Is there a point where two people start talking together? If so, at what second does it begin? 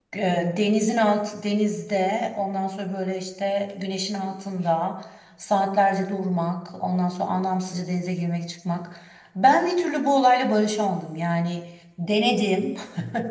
none

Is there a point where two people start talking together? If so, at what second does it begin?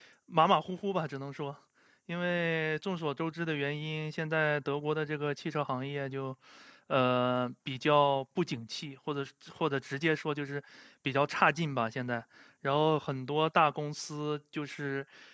none

